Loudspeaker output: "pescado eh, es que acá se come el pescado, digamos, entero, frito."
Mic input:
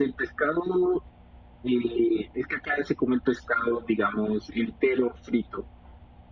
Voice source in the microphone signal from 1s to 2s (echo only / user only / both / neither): echo only